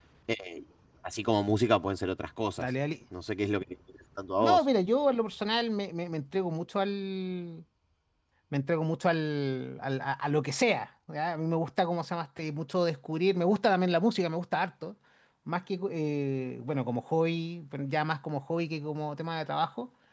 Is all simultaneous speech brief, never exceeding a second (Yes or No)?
Yes